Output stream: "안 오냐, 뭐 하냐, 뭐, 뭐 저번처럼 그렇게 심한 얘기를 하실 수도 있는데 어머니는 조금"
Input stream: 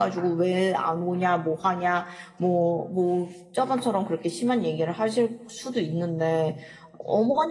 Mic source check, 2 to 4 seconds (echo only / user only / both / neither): echo only